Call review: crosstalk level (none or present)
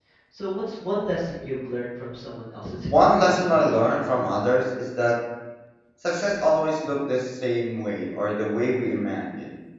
present